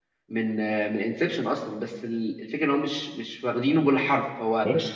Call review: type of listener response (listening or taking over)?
listening